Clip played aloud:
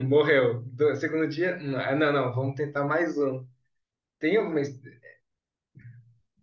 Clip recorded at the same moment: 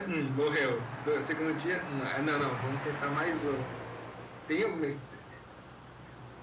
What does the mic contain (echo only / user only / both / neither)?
echo only